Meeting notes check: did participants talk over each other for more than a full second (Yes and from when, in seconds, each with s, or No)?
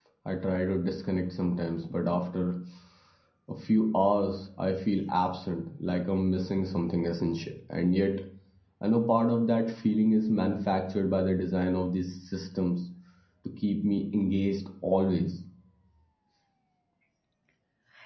No